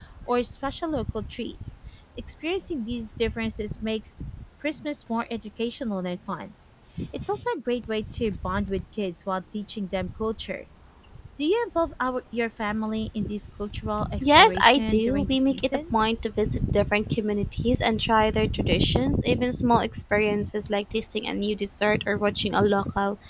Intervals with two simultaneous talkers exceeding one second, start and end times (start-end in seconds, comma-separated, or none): 14.2-15.8